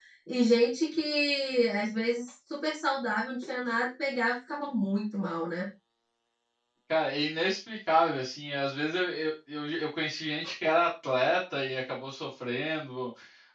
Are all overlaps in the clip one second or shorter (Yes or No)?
Yes